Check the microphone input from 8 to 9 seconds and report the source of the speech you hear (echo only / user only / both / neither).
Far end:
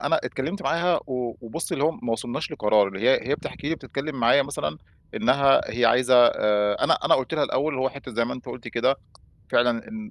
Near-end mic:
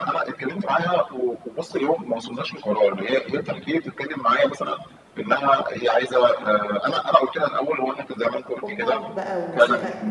both